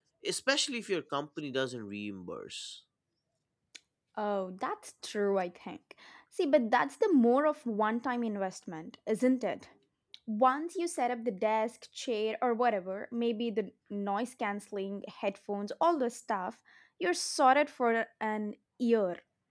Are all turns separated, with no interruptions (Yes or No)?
Yes